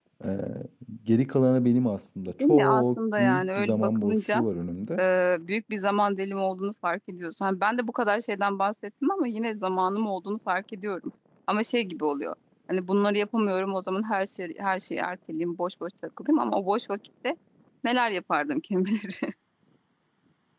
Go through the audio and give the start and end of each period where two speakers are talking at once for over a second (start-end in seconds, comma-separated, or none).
2.5-4.4